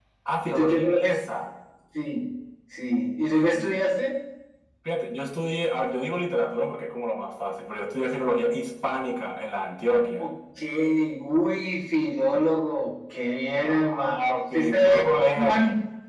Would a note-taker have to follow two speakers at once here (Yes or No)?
Yes